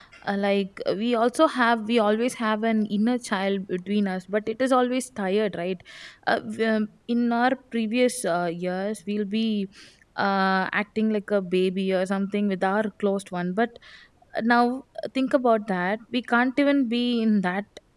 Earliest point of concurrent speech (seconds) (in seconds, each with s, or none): none